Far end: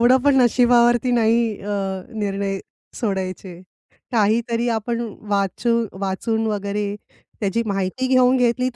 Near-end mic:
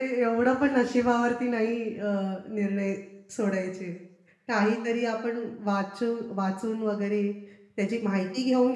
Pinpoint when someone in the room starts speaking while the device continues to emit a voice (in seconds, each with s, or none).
none